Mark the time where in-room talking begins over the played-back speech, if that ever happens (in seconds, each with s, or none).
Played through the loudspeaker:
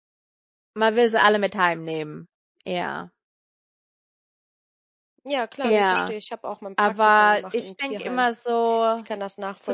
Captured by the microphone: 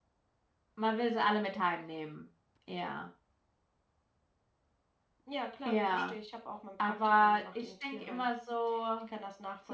none